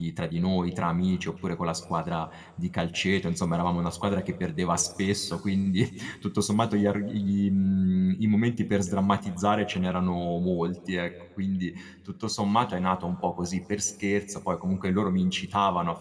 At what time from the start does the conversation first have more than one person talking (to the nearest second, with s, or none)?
none